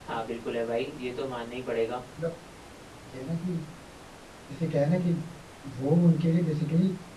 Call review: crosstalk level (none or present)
none